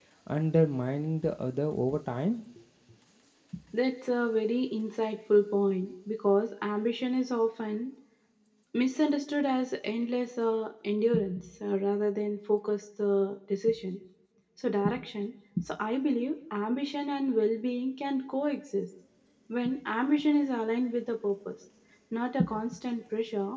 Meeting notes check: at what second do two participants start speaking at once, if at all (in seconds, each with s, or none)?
none